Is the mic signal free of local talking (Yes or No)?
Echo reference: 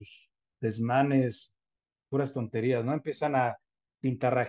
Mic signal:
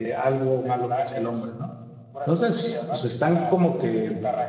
No